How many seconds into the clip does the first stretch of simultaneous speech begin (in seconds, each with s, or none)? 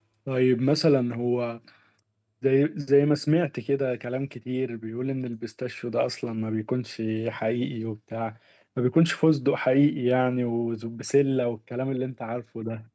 none